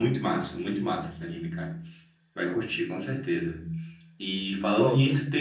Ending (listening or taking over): listening